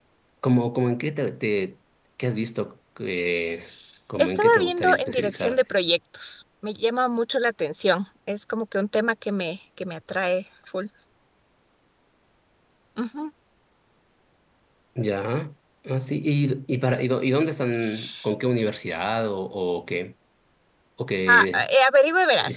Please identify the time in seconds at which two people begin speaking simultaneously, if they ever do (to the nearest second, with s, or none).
4 s